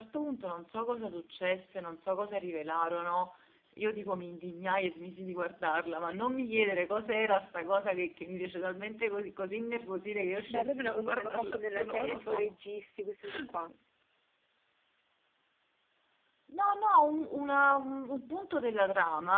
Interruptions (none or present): present